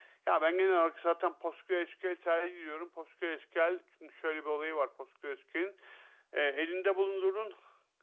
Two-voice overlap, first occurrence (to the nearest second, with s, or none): none